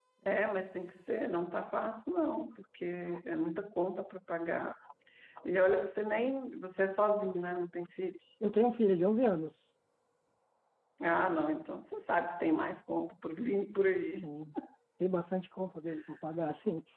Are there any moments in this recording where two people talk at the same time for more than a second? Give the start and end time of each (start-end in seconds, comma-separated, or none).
none